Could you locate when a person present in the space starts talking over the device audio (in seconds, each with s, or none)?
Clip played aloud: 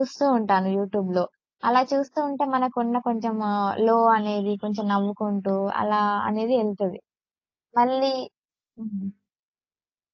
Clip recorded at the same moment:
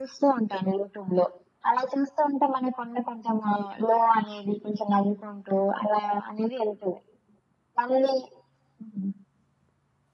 none